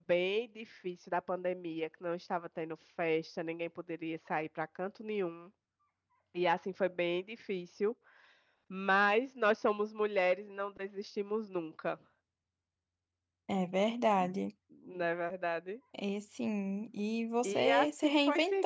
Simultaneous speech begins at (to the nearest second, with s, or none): 17 s